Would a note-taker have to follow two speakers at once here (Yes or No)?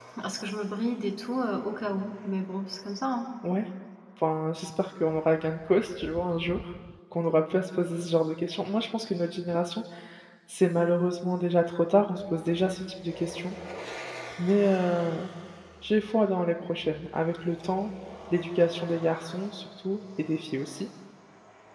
No